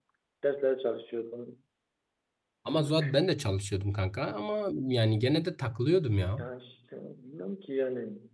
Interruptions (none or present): none